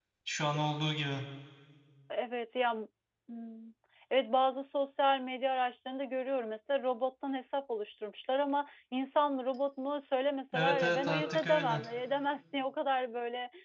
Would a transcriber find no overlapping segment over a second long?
No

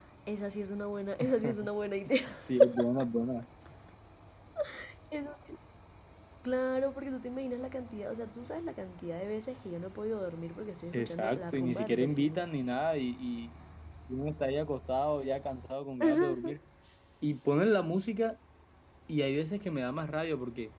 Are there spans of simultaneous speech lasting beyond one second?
Yes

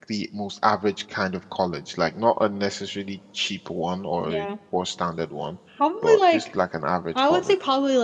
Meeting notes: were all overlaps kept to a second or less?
Yes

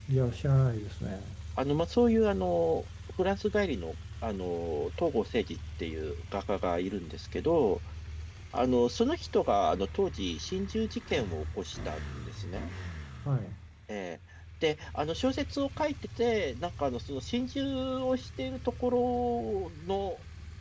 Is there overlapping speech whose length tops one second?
No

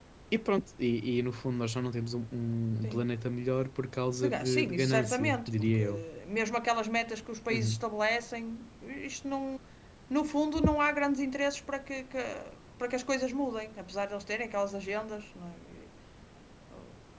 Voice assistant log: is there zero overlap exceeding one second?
No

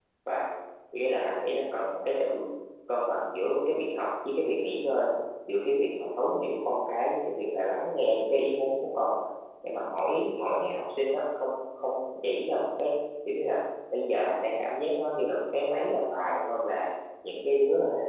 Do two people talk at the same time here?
No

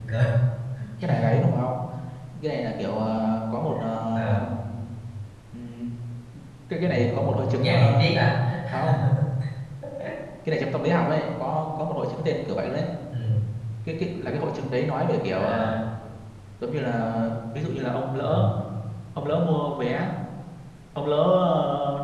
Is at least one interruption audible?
Yes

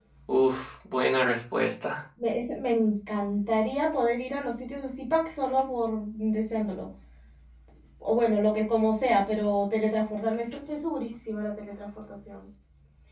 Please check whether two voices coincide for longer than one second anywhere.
No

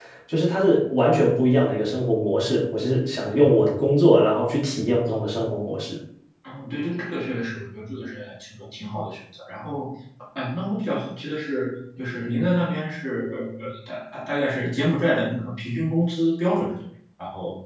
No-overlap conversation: Yes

